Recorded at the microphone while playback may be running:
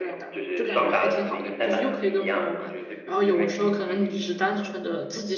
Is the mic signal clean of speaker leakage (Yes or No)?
No